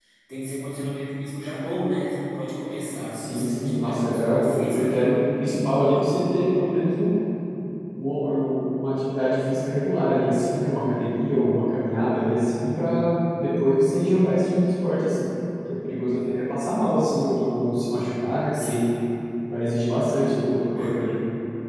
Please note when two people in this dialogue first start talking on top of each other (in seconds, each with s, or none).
3.1 s